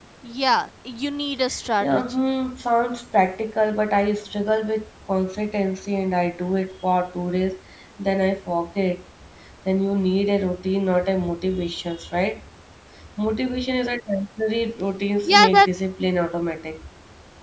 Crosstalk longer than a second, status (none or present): none